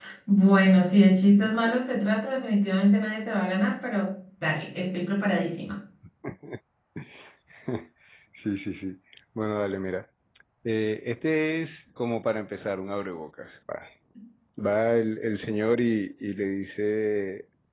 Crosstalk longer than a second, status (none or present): none